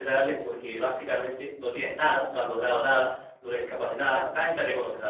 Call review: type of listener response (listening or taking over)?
listening